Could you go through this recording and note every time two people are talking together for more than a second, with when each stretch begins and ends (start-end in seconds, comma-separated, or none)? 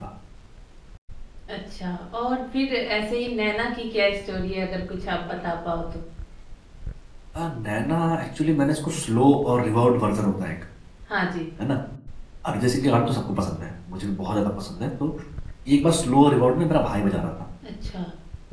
none